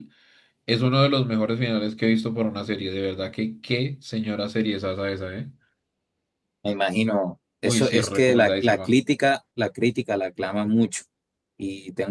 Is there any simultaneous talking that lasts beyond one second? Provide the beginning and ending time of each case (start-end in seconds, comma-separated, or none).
7.6-8.9